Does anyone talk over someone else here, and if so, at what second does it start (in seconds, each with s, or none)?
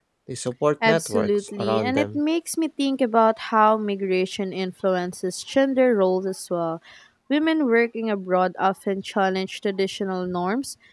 0.8 s